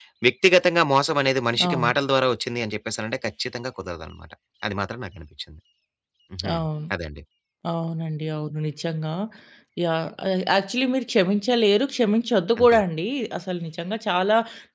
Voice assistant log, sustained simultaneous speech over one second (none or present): none